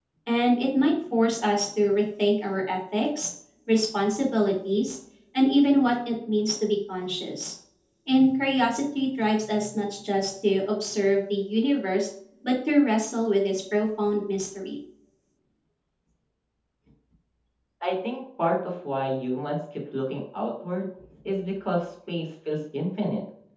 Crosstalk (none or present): none